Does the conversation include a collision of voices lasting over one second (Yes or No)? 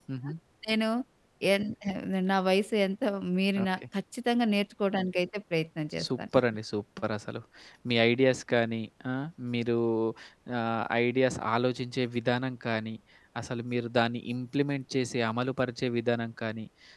No